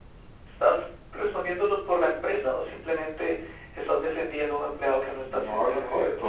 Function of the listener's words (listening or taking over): taking over